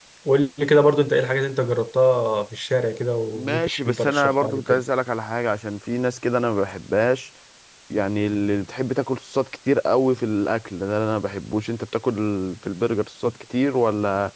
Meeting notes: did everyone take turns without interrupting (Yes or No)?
No